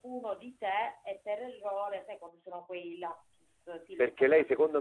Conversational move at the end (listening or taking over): taking over